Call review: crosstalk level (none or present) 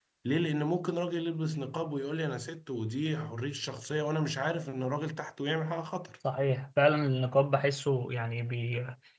none